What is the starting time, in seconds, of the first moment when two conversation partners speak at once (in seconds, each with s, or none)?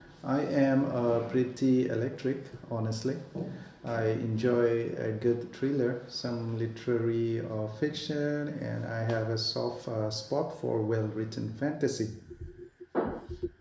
none